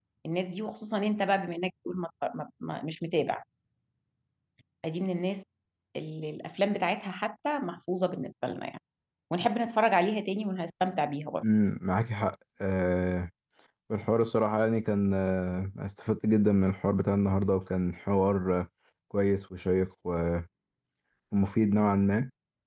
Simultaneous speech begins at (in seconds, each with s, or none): none